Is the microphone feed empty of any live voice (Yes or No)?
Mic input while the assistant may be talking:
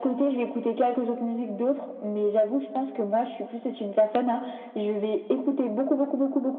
Yes